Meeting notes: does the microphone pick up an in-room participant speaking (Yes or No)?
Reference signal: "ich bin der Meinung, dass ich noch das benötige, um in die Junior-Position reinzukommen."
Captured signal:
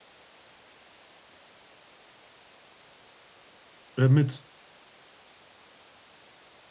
Yes